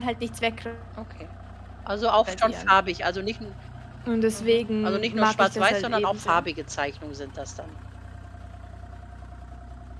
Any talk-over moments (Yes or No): Yes